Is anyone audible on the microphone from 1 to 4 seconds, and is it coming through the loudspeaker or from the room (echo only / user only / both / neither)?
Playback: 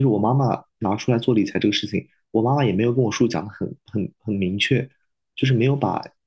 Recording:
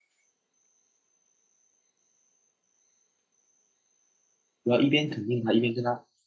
neither